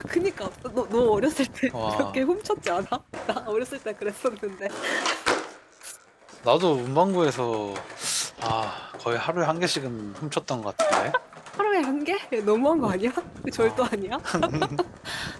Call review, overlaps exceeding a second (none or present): none